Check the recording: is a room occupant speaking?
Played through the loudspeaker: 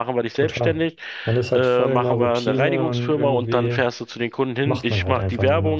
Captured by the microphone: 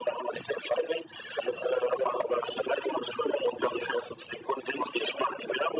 No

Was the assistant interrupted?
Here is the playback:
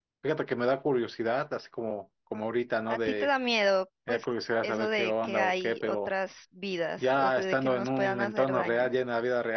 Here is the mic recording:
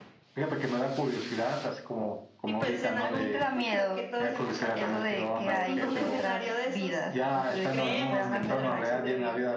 Yes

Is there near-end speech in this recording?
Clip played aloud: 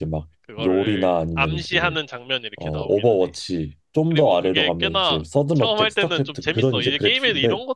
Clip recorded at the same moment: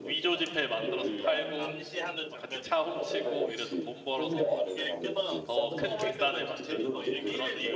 Yes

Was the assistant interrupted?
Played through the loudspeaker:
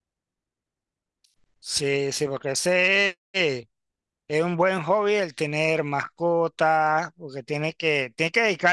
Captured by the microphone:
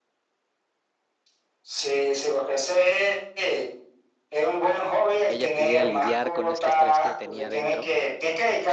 Yes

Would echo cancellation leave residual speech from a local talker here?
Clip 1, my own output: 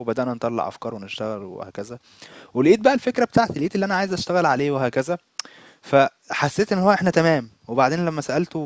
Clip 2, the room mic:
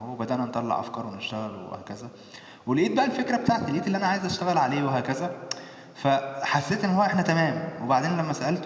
No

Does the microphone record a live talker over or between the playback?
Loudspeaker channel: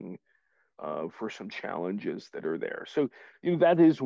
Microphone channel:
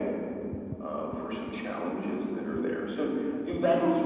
No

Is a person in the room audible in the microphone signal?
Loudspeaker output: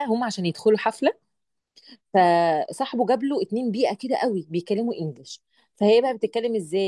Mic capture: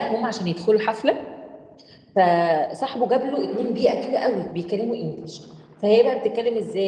No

